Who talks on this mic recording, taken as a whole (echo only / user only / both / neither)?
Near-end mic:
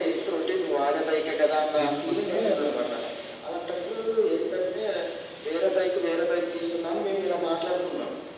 both